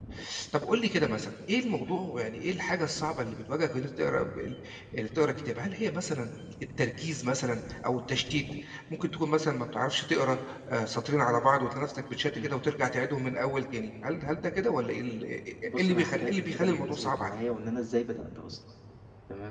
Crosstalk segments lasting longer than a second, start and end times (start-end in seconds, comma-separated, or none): 15.8-17.4